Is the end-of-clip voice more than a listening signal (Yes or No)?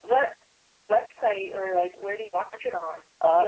Yes